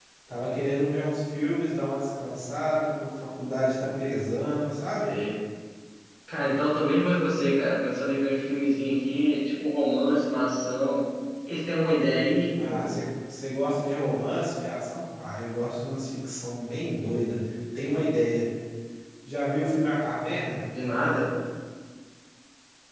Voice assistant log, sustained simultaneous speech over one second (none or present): none